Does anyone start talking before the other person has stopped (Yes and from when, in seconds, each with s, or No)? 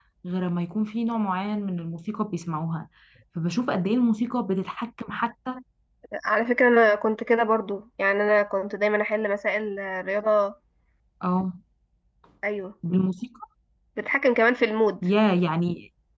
No